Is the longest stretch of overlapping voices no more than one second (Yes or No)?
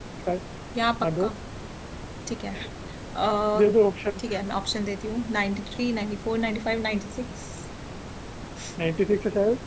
Yes